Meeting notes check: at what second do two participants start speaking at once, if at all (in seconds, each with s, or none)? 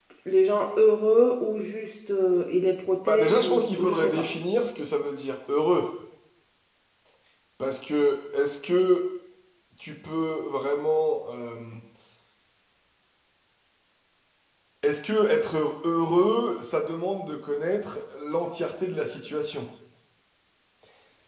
3.1 s